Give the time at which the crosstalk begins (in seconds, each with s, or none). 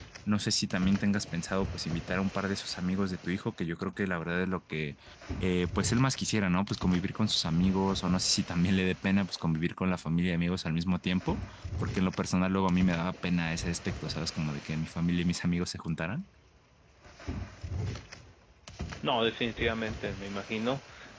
none